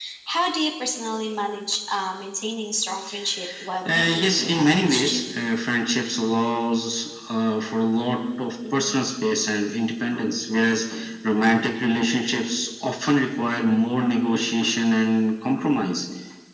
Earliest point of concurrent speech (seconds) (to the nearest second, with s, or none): 4 s